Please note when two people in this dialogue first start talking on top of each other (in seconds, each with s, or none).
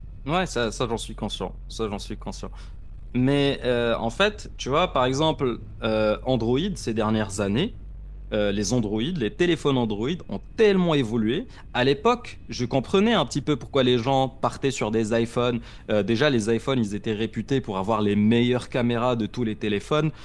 none